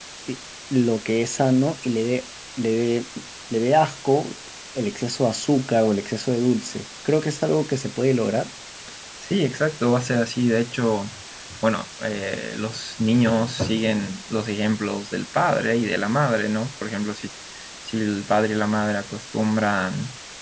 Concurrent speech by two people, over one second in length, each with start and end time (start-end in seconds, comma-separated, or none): none